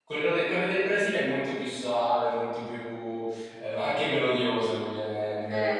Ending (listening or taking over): taking over